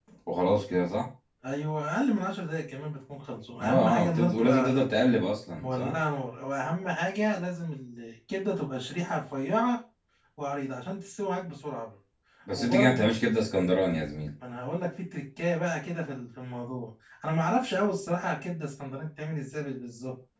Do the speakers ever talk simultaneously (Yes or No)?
Yes